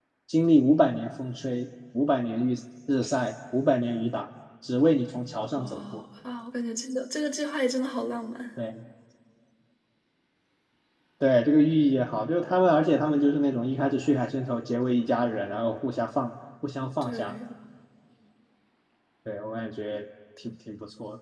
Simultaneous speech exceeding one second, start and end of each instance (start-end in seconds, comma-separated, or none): none